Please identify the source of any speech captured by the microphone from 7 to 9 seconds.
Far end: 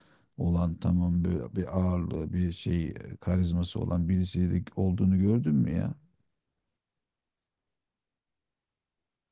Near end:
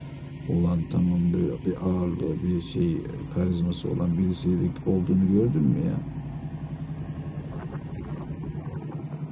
neither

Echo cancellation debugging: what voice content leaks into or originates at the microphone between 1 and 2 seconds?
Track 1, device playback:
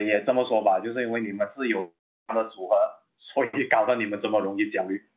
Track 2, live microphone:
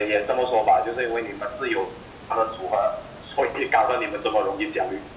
echo only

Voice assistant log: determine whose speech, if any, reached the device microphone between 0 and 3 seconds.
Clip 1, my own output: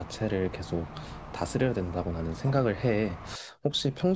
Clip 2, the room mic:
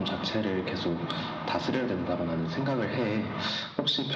echo only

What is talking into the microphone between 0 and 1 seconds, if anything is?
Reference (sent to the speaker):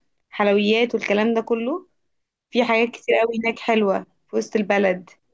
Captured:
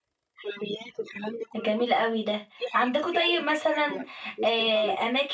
echo only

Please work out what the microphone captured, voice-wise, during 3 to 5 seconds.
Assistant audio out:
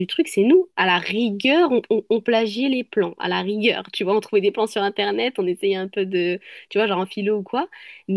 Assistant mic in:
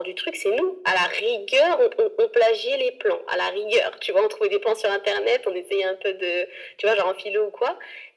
echo only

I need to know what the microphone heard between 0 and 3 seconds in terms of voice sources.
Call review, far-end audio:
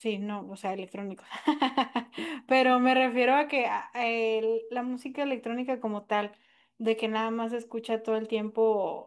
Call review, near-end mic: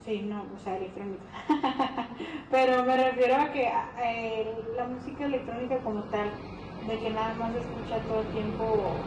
echo only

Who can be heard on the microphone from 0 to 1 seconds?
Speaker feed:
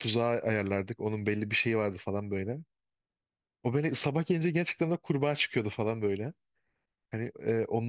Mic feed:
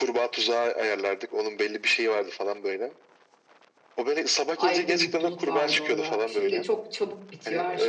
echo only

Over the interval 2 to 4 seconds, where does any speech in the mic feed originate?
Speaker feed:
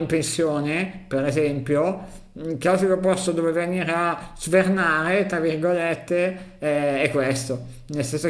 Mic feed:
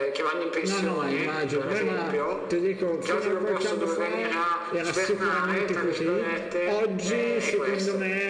both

